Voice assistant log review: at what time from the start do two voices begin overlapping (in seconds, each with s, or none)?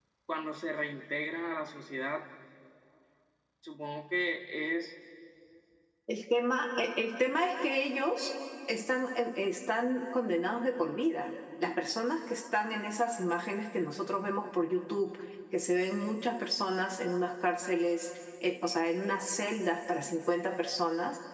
none